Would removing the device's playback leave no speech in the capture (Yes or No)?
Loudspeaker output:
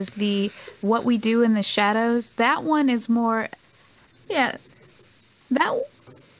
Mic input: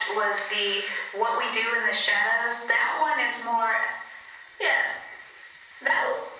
Yes